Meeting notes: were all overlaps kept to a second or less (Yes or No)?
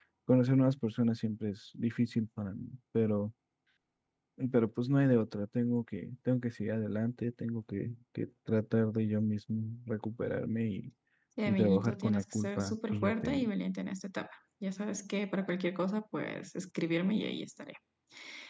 No